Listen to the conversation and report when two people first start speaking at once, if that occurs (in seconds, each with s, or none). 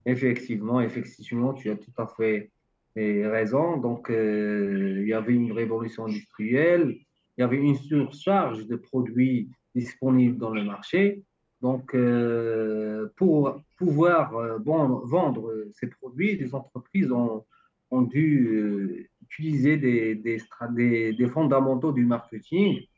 none